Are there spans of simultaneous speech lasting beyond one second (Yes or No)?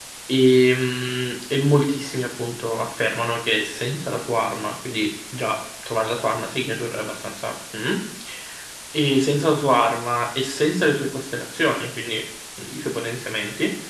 No